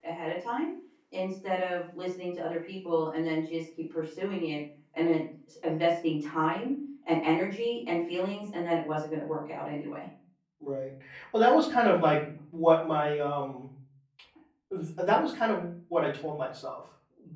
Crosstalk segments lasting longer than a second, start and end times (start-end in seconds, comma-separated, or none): none